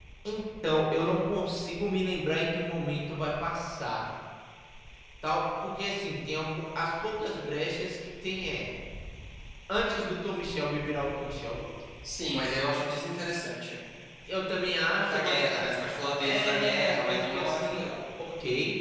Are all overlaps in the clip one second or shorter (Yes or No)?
No